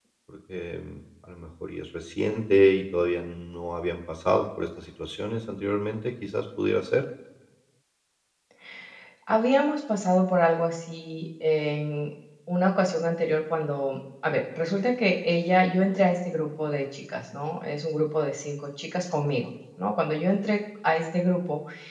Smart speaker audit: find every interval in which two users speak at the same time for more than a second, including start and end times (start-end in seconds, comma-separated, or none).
none